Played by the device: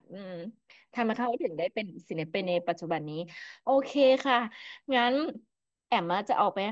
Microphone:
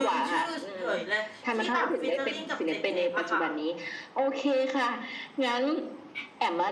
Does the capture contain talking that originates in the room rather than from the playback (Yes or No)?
Yes